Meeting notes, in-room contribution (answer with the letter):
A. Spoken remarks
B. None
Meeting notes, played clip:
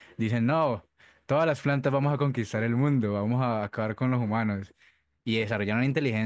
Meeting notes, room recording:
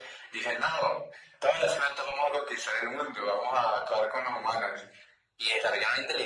B